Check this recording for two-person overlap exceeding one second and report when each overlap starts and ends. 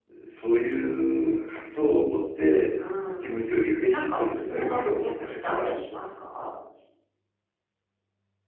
3.9-5.8

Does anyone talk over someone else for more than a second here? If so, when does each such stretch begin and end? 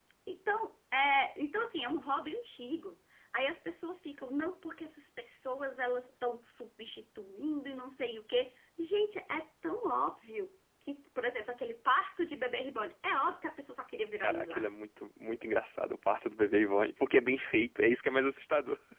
none

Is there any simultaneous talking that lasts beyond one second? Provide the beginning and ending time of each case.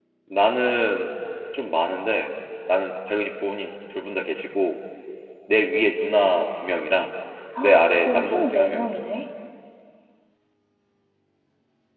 7.6-9.0

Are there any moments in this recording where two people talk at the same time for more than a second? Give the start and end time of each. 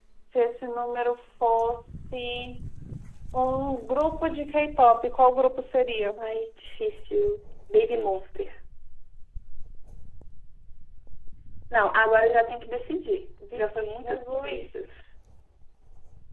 13.5-14.8

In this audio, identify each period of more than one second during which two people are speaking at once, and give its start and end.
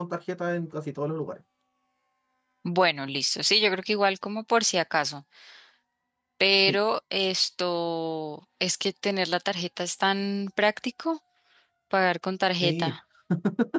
none

